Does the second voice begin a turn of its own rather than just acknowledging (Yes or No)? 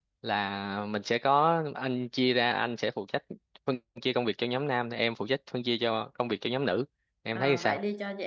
Yes